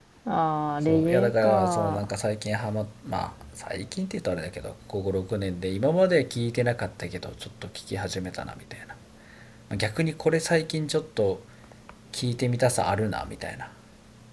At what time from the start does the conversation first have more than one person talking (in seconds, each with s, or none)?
0.8 s